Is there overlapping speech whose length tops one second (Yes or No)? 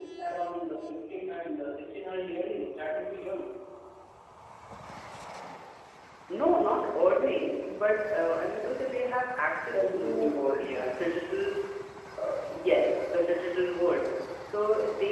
Yes